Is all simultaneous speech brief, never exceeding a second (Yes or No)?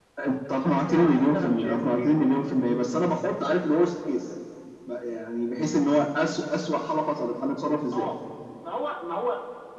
No